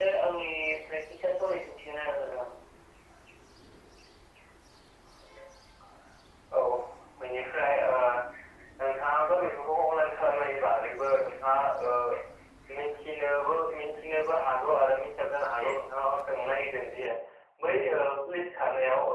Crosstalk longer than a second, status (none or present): none